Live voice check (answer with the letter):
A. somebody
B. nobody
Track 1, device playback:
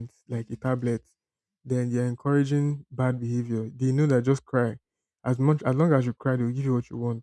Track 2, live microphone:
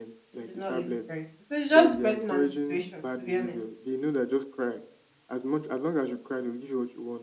A